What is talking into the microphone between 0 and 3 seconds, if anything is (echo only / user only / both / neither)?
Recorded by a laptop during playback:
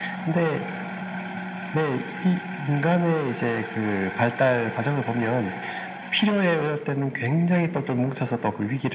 echo only